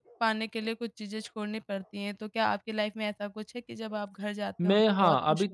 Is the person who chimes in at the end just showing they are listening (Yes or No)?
No